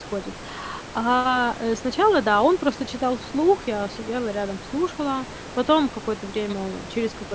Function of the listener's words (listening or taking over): listening